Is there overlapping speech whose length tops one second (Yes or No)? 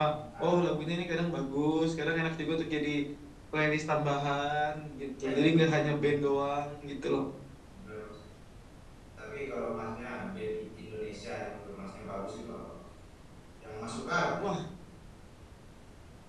Yes